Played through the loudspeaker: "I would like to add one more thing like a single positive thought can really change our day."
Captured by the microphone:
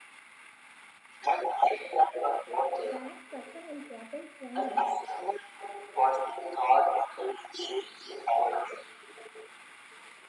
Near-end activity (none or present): present